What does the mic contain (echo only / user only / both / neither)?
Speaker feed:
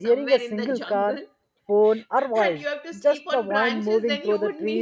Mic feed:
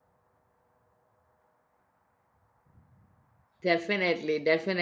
user only